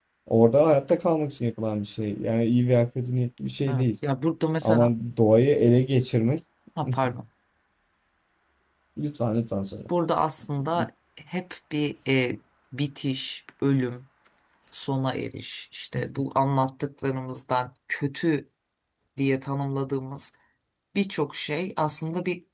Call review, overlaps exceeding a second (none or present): none